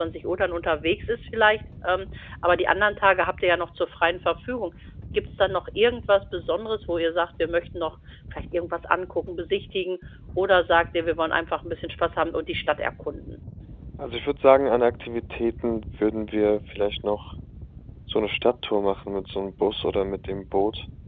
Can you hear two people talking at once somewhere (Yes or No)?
No